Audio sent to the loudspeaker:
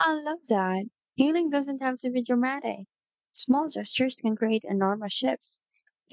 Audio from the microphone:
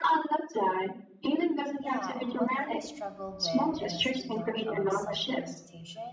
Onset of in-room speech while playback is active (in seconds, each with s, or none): 1.8 s